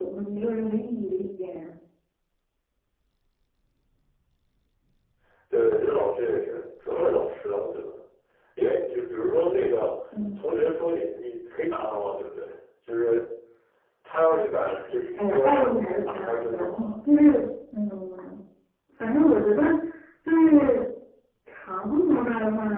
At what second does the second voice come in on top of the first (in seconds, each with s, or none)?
15.2 s